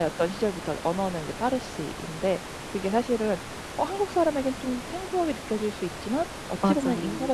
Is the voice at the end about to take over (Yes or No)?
No